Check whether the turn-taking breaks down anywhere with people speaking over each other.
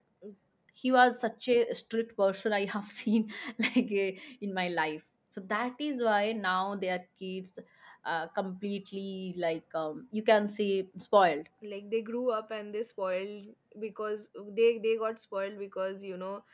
No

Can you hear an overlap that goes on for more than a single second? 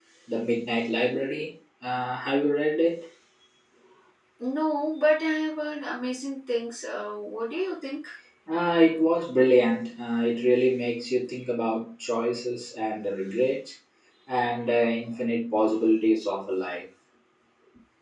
No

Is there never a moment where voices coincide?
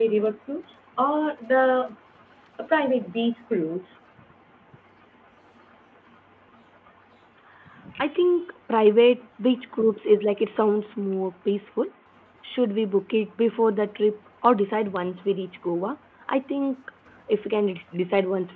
Yes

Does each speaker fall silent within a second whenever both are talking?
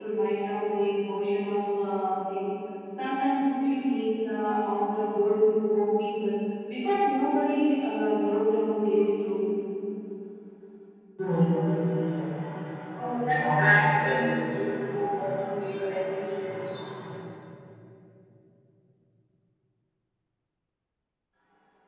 Yes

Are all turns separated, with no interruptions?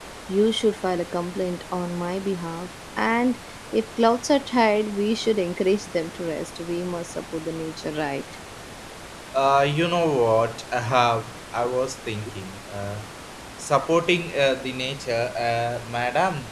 Yes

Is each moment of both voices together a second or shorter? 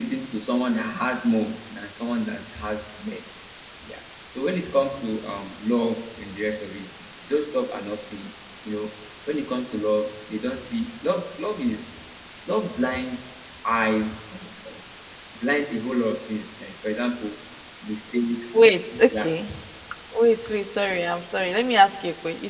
Yes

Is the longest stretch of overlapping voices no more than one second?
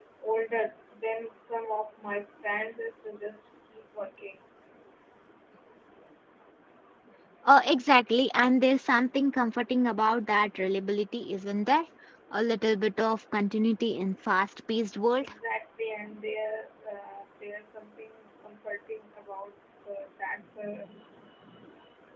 Yes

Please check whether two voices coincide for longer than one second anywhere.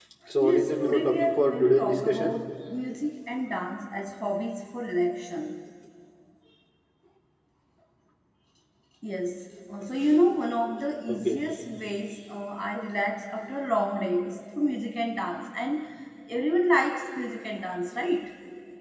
Yes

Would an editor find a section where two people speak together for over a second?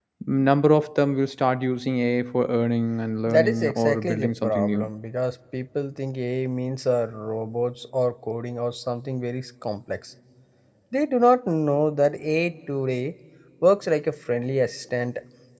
Yes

